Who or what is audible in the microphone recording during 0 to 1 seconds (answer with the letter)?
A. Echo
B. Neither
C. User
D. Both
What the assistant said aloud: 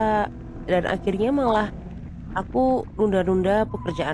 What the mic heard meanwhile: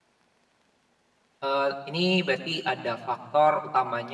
B